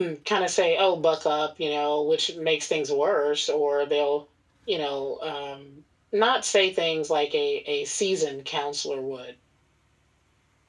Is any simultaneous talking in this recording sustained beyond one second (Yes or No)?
No